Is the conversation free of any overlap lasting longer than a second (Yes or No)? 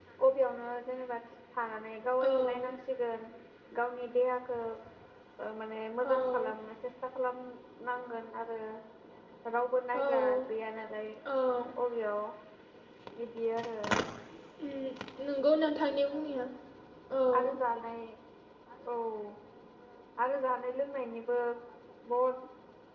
Yes